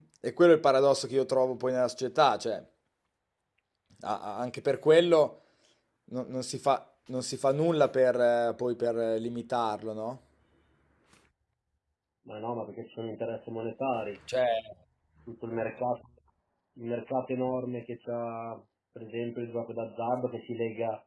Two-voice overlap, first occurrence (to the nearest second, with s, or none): none